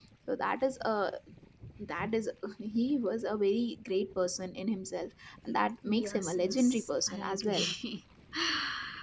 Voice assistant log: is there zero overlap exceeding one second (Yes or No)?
No